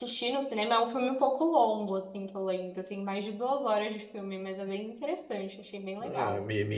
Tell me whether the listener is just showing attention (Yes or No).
No